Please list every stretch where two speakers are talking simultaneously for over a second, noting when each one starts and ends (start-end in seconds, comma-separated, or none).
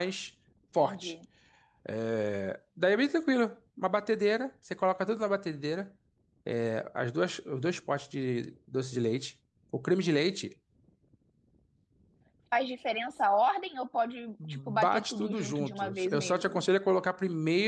14.5-16.7